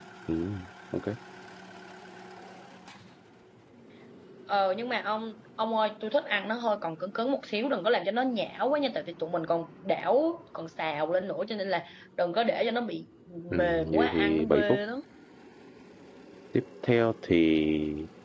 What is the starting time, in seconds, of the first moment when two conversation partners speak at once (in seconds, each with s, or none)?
13.6 s